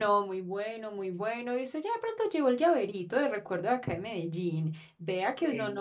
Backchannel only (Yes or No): Yes